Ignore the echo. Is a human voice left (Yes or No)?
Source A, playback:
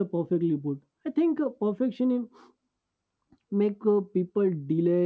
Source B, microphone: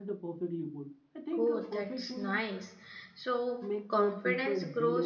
Yes